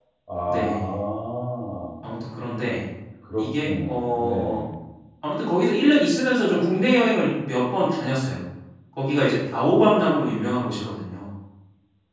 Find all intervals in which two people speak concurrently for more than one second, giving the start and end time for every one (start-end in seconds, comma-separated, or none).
3.4-4.6